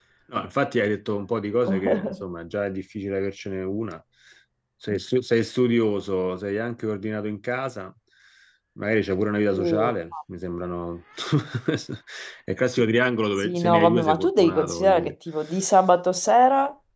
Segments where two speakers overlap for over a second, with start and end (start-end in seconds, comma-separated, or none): 13.4-15.1